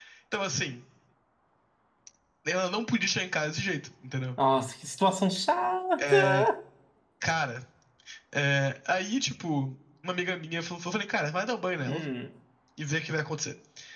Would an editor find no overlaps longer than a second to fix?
Yes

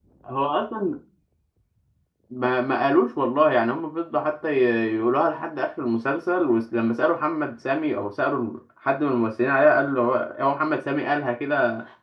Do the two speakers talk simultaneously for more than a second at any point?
No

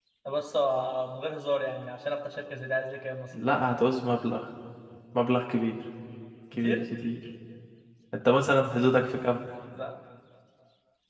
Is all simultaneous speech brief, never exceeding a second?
Yes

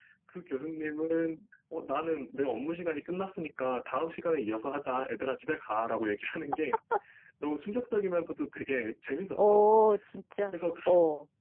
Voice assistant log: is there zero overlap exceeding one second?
Yes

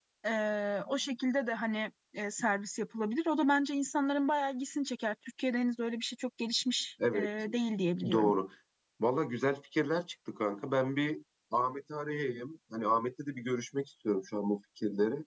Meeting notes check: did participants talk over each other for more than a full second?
No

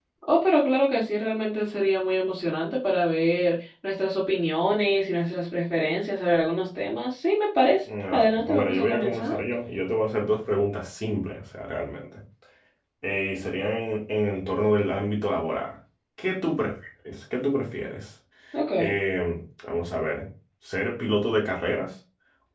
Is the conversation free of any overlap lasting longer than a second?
No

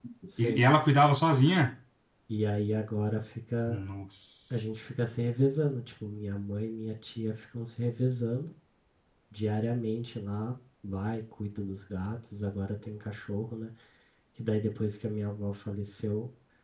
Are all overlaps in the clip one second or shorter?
Yes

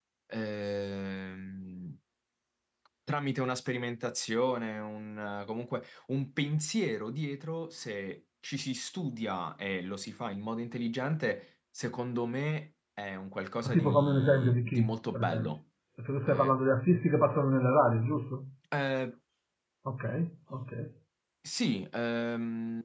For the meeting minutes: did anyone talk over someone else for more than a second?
Yes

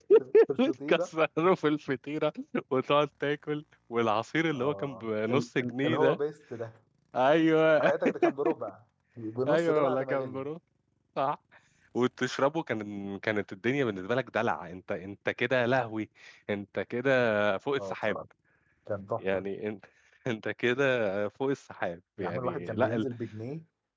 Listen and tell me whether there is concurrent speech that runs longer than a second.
Yes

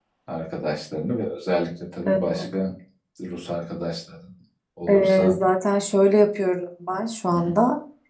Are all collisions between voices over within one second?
Yes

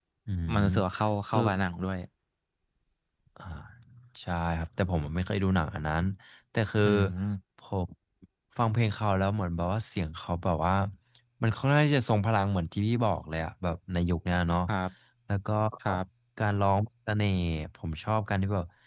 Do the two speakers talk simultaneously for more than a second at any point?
No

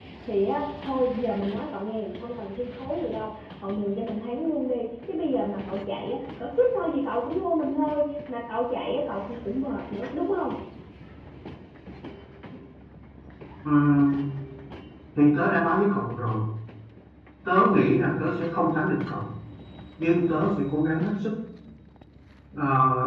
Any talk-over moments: No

